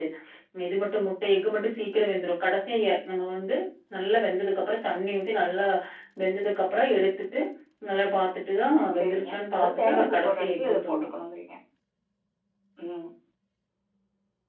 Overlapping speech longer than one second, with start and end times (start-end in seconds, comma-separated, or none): 9.0-11.0